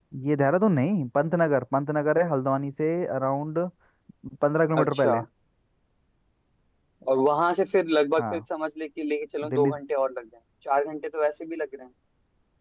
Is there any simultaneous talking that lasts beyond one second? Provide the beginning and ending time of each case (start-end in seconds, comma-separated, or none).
none